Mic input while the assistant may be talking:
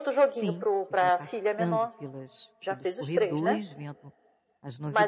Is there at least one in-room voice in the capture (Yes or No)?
Yes